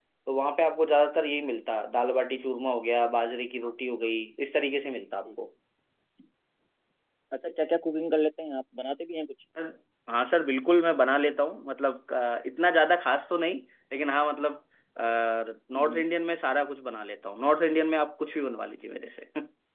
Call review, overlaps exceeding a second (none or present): none